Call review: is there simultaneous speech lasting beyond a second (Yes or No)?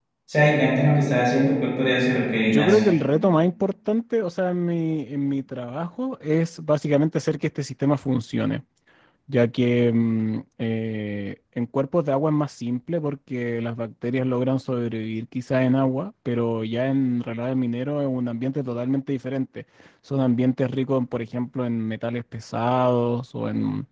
No